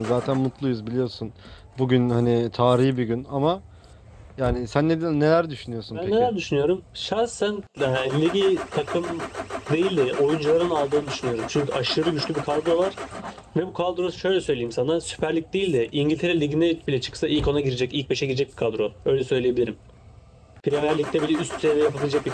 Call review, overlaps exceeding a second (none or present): none